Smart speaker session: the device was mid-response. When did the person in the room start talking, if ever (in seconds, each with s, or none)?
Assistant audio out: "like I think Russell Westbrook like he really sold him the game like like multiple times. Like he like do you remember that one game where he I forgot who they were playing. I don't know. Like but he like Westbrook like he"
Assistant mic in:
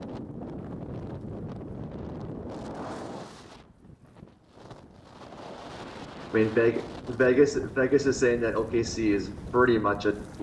6.3 s